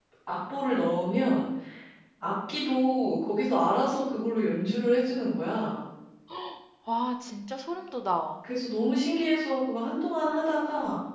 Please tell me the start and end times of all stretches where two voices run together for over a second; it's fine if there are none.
none

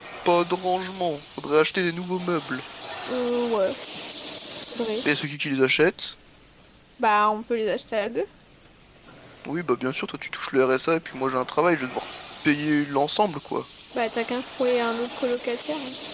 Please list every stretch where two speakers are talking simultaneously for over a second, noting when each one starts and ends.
none

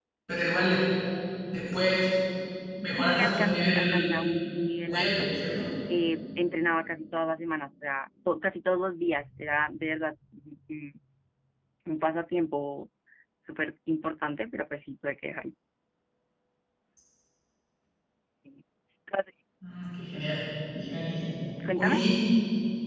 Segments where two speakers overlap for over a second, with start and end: 3.0-4.2

